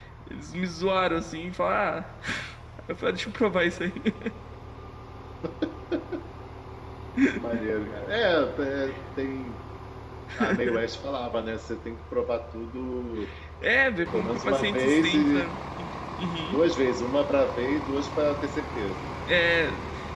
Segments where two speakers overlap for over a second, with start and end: 14.1-15.4

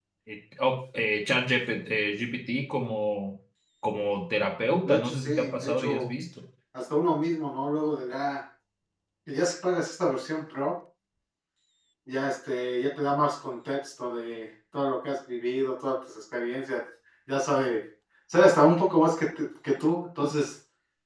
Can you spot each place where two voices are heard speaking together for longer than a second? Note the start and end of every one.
4.8-6.1

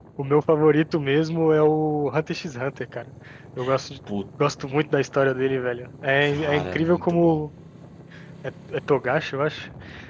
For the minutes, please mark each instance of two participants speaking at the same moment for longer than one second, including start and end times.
6.2-7.5

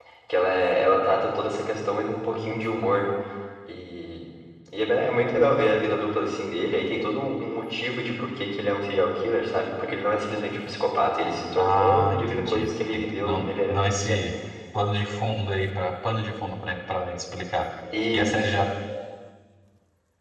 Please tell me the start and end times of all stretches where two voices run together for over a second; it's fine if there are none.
11.6-14.2

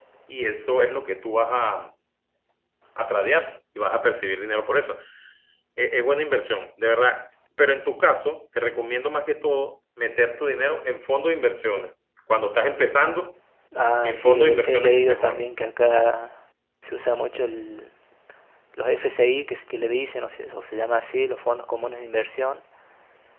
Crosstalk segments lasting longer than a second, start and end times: 14.0-15.4

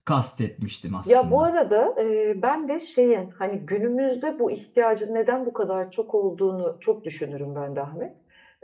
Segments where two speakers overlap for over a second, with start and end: none

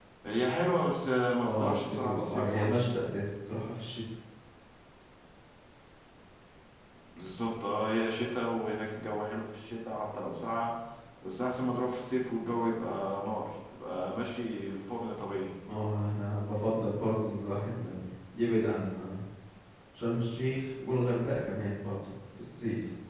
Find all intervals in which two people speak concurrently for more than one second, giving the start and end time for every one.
1.4-3.0

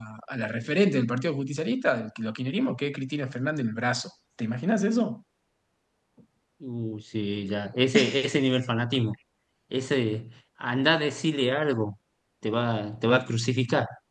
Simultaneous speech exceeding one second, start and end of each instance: none

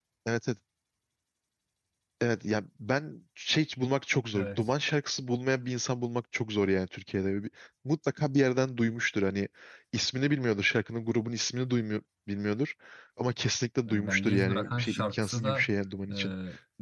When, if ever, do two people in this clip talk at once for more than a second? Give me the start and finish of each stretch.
13.8-15.7

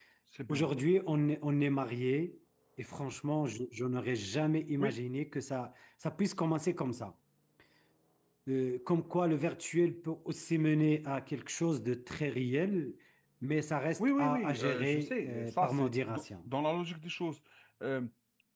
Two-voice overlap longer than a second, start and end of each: 14.0-16.5

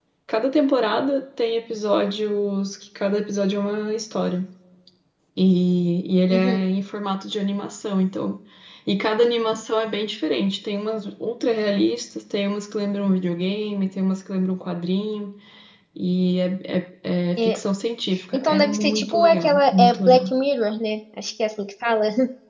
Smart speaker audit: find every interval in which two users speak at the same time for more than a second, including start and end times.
18.3-20.3

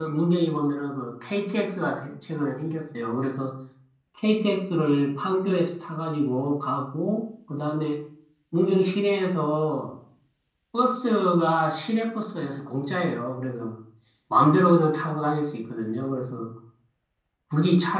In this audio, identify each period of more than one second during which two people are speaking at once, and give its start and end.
none

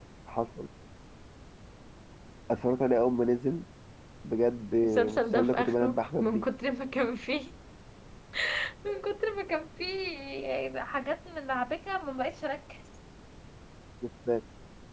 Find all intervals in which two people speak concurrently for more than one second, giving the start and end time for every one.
4.8-6.5

